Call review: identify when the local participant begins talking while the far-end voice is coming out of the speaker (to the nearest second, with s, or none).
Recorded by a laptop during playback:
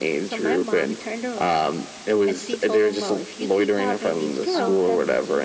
5 s